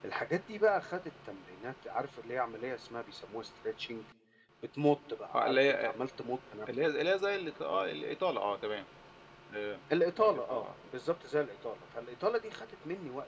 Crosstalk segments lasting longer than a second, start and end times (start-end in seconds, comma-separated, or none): none